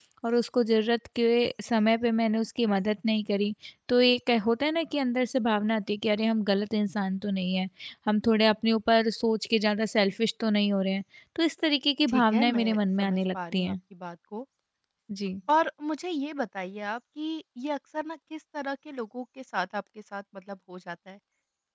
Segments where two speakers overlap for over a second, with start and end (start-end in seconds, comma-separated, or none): 12.1-13.7